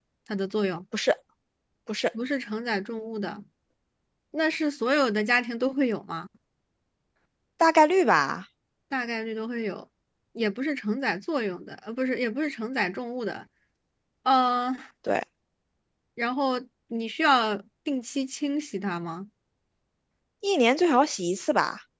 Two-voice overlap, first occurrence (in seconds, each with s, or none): none